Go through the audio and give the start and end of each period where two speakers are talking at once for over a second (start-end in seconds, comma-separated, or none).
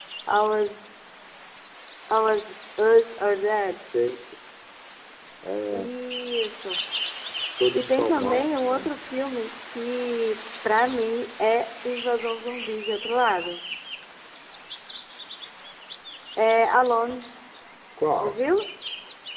7.7-8.9